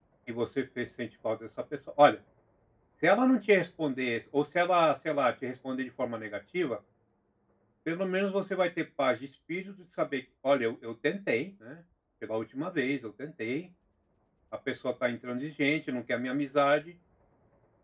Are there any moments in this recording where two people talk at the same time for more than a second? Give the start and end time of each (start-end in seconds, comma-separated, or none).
none